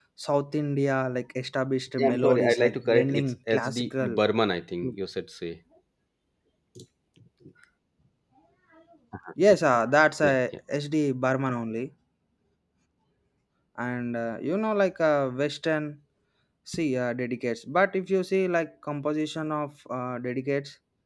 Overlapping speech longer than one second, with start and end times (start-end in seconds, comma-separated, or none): 2.0-4.2